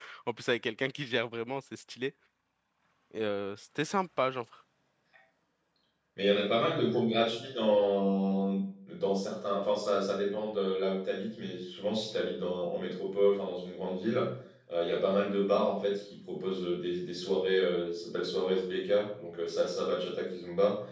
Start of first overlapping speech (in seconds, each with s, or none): none